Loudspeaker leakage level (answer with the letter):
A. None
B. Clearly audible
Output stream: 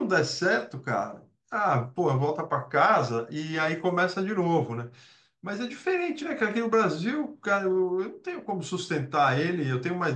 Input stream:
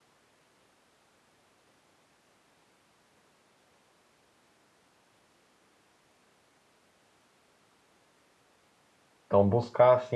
A